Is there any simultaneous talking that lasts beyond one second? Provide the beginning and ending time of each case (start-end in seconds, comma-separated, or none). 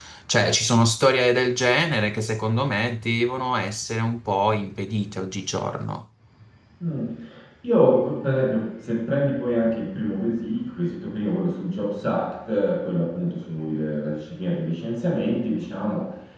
none